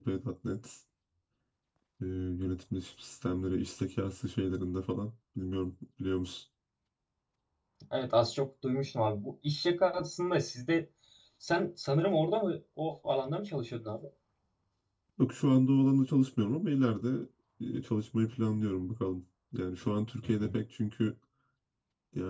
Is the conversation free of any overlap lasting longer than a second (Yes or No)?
Yes